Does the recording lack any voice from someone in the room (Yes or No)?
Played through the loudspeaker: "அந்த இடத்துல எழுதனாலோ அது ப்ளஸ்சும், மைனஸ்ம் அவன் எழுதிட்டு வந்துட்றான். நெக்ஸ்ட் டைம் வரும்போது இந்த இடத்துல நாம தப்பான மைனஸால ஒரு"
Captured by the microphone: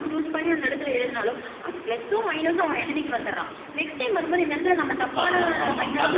No